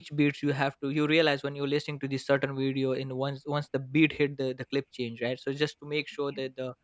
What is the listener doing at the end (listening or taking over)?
listening